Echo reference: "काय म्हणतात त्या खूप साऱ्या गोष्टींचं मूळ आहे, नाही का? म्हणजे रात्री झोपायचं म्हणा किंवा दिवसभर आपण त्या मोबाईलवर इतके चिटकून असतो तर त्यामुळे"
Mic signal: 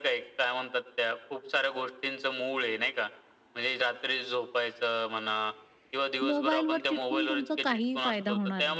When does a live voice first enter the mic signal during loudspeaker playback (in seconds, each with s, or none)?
6.2 s